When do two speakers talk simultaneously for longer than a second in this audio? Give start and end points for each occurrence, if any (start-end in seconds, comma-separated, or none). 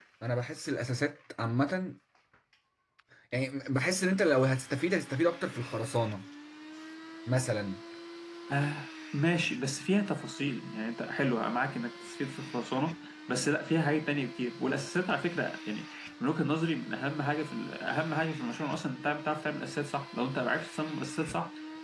none